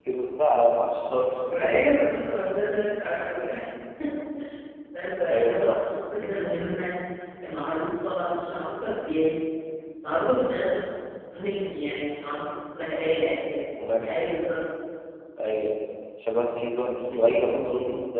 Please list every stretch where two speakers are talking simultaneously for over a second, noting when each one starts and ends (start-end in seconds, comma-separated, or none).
none